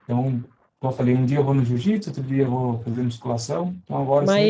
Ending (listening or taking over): taking over